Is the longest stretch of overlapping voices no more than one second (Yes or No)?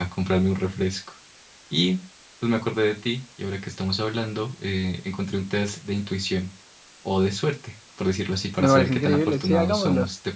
No